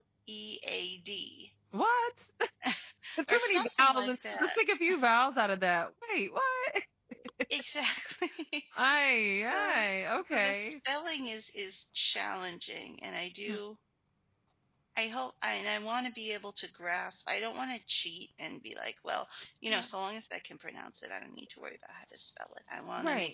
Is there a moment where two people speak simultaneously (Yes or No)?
Yes